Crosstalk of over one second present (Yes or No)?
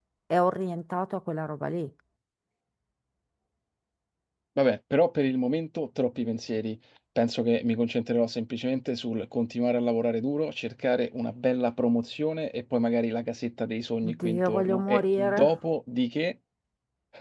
Yes